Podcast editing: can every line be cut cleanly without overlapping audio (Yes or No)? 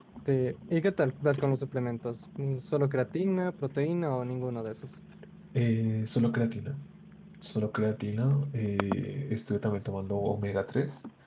Yes